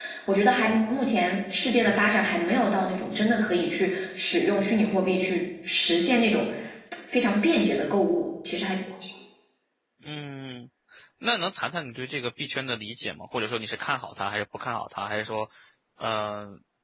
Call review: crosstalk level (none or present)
none